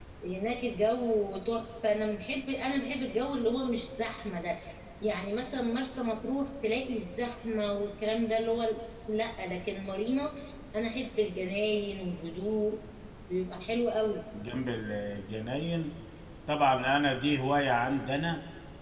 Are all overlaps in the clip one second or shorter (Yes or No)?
Yes